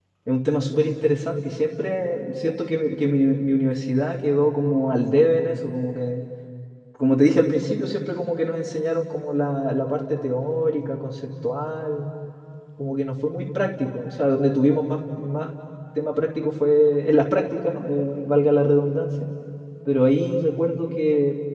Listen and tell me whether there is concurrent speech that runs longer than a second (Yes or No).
No